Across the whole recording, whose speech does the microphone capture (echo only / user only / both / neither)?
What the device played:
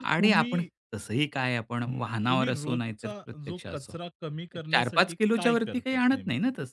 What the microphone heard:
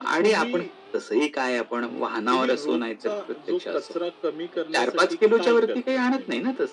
echo only